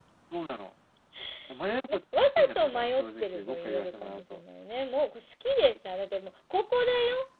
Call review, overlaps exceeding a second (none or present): present